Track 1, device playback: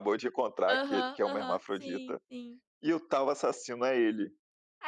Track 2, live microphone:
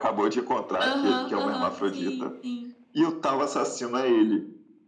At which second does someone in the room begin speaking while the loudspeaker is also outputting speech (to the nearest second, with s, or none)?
none